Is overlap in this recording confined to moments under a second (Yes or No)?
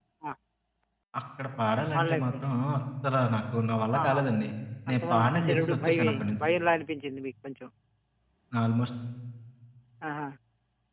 No